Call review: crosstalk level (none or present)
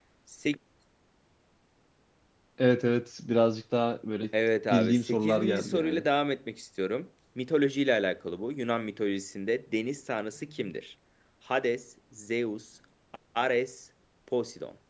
present